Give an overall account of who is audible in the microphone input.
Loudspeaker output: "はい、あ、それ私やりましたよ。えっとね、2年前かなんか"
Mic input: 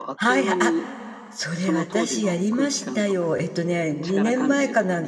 both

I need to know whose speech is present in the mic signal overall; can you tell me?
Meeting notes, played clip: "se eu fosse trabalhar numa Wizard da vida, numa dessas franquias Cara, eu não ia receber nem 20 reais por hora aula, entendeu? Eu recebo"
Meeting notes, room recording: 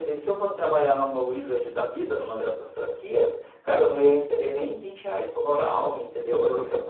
echo only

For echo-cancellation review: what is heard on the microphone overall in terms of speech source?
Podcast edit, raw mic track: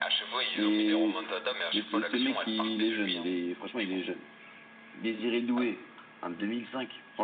both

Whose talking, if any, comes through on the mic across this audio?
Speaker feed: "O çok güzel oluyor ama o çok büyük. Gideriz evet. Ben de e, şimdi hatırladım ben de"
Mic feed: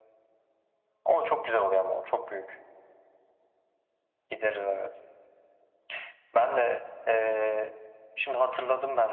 echo only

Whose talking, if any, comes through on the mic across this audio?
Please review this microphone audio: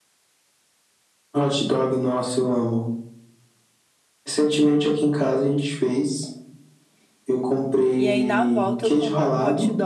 both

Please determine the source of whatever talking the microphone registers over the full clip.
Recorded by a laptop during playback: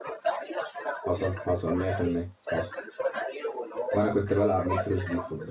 both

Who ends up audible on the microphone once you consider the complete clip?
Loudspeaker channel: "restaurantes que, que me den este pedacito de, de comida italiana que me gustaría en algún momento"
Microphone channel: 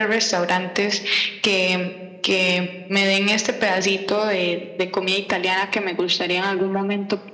echo only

